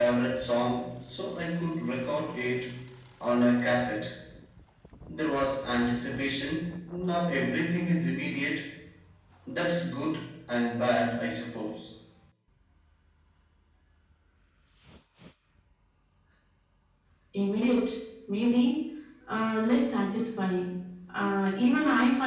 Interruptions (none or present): none